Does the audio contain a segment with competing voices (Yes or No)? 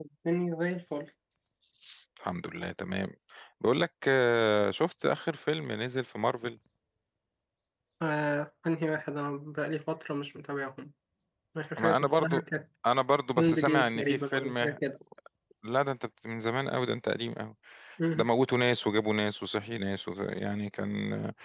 Yes